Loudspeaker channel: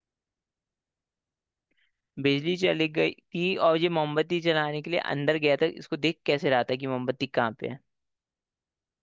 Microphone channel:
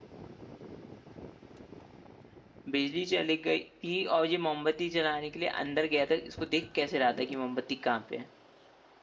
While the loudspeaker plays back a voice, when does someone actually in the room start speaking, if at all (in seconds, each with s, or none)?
none